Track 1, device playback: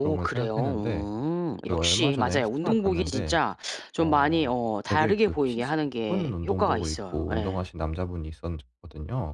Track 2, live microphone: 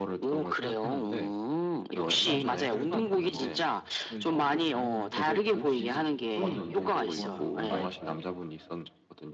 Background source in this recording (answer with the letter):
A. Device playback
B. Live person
B